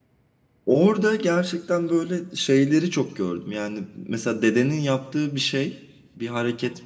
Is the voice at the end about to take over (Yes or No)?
No